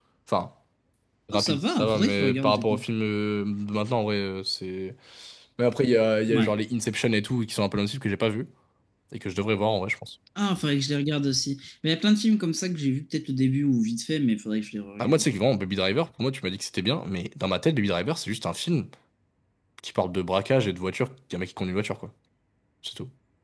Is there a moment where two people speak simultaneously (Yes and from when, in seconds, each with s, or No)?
Yes, from 1.3 s